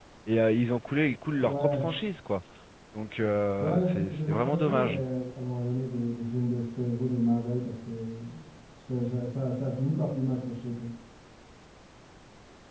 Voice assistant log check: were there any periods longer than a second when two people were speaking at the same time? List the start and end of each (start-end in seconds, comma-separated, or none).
3.6-5.0